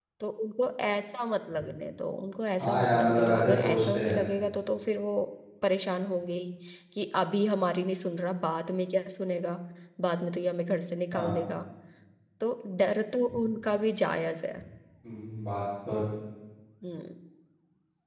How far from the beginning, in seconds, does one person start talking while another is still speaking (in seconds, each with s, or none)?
2.6 s